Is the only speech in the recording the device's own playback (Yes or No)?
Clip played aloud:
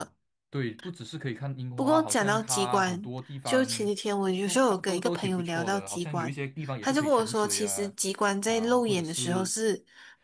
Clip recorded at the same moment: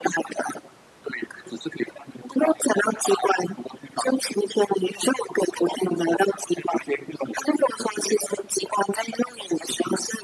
Yes